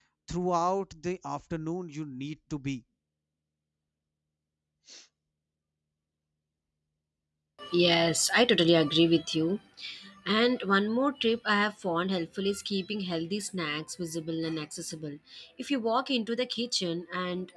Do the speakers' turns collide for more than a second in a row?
No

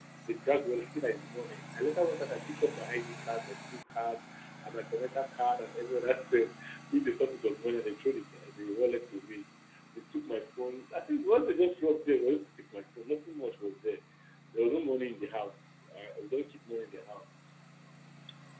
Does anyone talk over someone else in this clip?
No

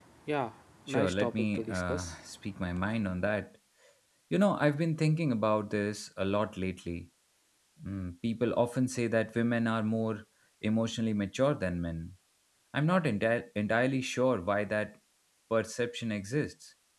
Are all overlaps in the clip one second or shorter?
No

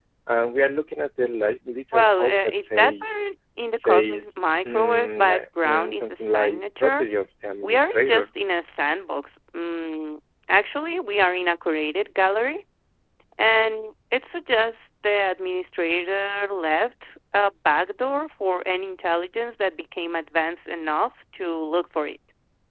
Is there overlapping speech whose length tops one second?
Yes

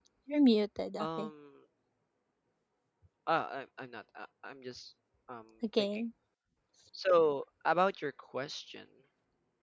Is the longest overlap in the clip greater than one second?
No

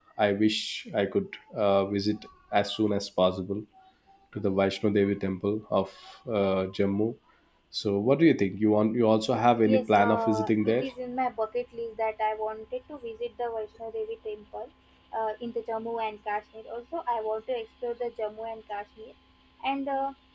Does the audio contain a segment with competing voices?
Yes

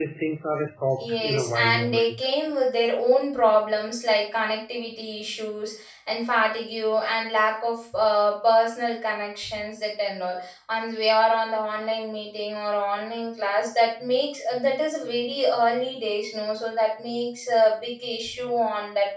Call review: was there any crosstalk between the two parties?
Yes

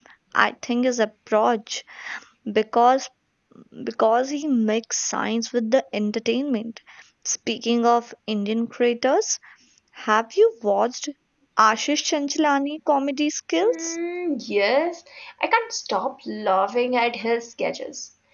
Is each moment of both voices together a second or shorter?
Yes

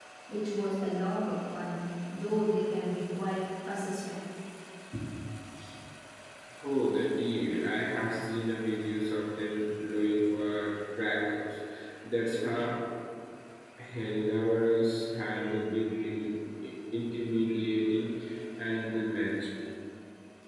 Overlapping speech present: No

